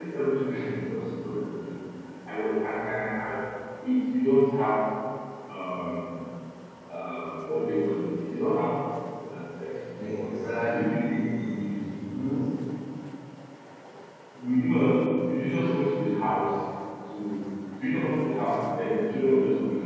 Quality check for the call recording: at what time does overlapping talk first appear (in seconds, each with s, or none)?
10.0 s